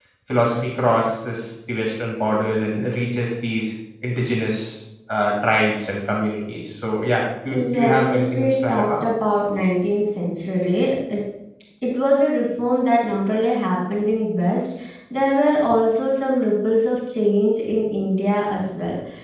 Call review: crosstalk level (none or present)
present